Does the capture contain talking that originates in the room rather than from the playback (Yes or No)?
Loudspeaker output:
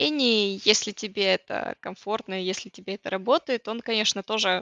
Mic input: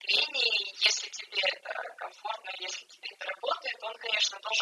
No